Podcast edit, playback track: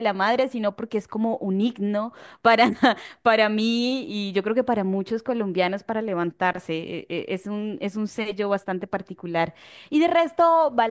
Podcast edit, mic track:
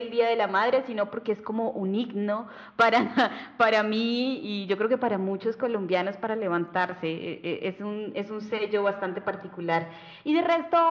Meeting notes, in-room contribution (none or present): none